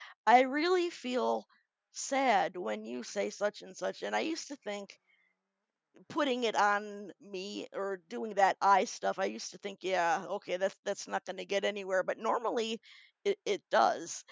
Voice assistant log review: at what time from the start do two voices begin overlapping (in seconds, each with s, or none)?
none